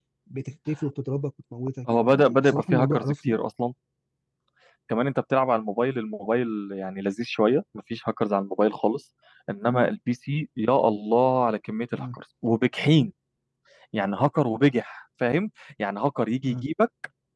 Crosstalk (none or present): present